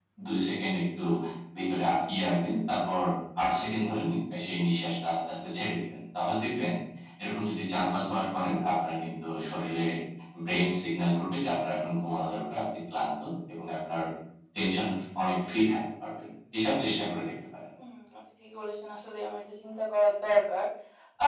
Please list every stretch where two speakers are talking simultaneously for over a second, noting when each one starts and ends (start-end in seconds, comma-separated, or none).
none